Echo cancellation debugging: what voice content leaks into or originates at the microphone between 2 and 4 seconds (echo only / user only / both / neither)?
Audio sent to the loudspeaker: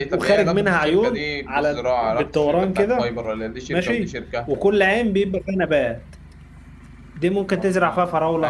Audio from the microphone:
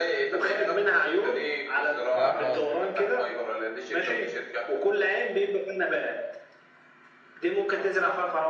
both